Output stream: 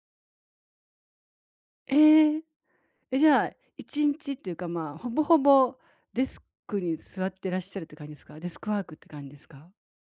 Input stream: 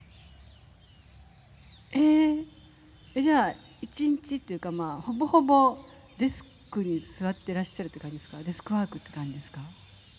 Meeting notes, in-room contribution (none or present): none